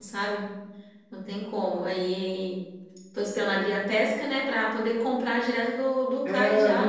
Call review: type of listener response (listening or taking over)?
taking over